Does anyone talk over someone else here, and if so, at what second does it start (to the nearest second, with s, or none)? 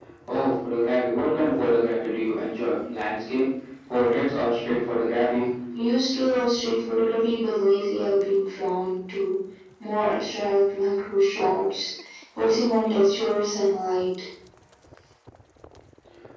none